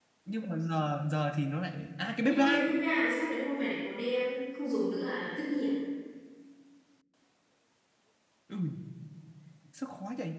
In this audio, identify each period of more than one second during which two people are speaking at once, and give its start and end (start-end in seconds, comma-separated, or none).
none